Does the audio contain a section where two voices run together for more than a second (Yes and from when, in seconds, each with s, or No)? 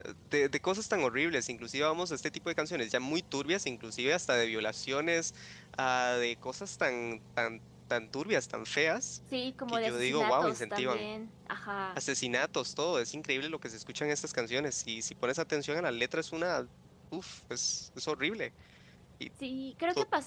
Yes, from 9.7 s